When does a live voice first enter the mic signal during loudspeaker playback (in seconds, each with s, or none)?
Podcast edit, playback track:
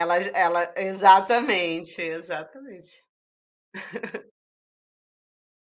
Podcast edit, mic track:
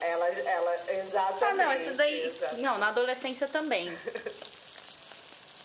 1.4 s